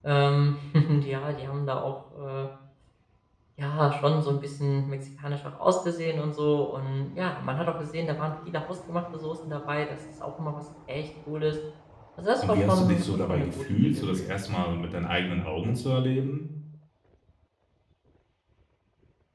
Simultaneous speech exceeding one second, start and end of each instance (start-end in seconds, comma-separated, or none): 12.5-14.6